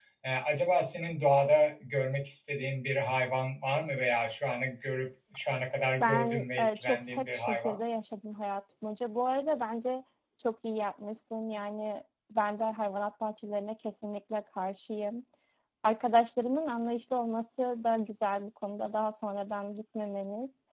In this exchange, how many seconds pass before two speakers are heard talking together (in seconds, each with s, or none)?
6.0 s